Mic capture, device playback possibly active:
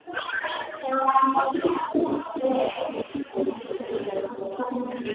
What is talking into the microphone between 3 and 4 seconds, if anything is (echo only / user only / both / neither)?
echo only